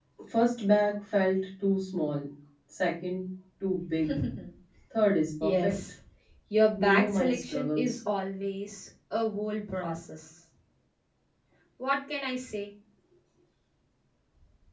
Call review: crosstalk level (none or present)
present